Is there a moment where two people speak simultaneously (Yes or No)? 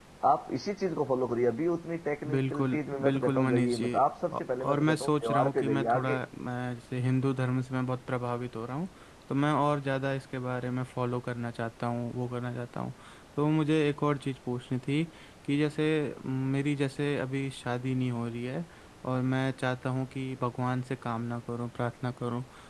Yes